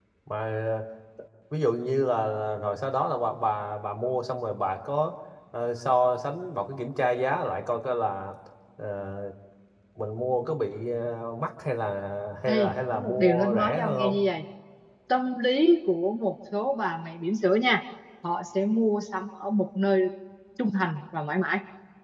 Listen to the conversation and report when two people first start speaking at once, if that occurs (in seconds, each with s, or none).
12.5 s